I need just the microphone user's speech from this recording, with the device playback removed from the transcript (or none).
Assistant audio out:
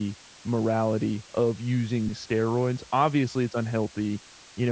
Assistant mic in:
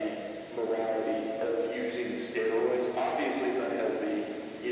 none